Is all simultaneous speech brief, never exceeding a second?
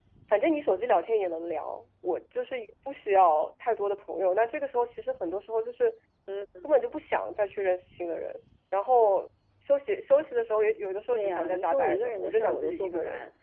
No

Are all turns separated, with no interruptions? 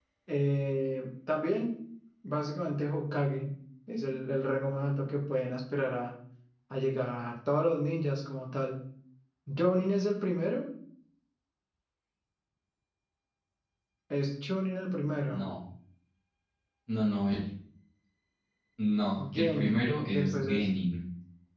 No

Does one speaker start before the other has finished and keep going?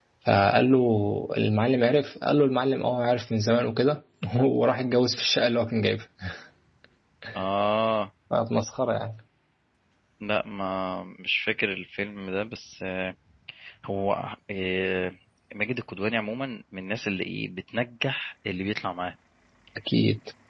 No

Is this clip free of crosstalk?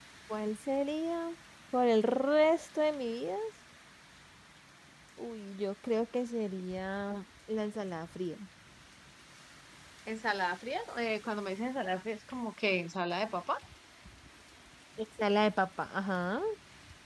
Yes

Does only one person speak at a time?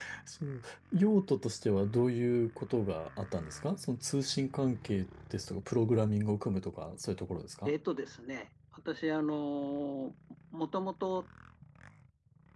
Yes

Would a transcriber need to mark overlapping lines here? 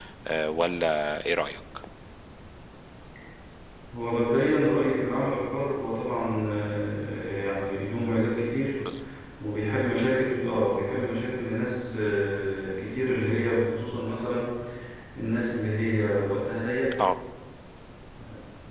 No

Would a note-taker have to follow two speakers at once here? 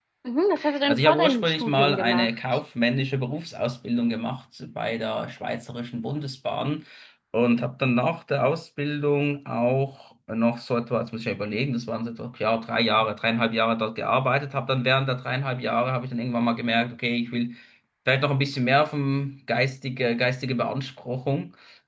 Yes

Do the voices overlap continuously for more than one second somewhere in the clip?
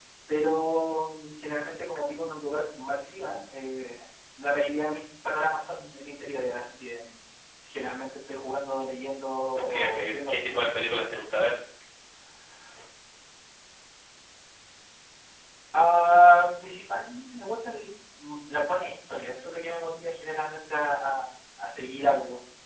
Yes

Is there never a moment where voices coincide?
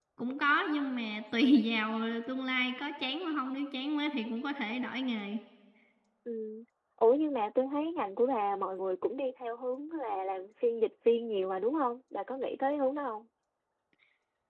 Yes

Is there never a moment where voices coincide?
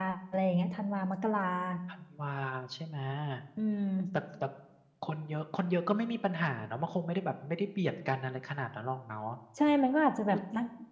Yes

